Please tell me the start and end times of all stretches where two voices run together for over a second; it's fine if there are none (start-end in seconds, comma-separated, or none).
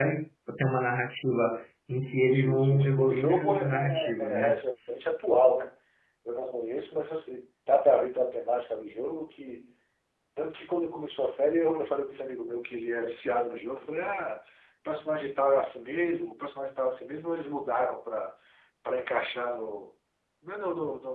2.1-4.6